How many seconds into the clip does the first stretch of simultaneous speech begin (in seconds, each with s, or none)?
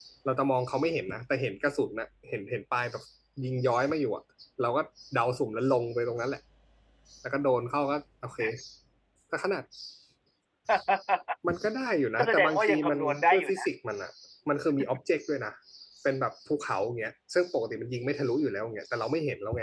12.2 s